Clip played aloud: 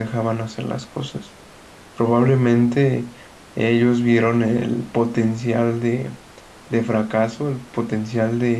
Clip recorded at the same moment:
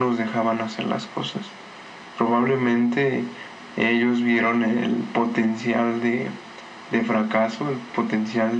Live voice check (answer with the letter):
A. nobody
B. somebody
A